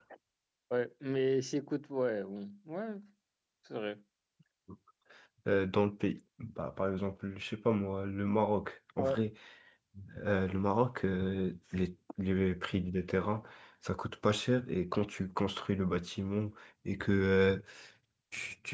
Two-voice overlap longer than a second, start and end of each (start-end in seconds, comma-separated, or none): none